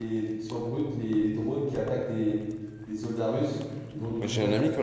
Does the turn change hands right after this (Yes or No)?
Yes